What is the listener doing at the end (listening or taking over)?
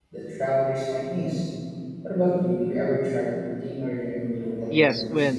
taking over